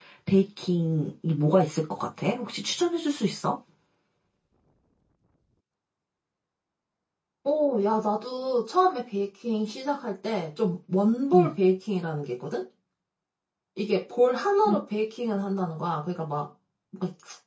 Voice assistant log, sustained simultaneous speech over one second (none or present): none